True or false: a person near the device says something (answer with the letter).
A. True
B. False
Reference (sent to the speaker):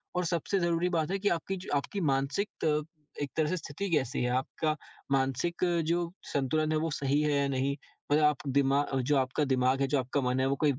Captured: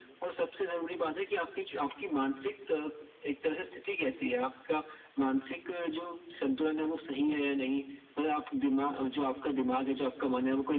B